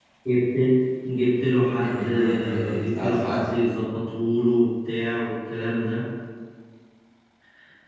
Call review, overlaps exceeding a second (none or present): present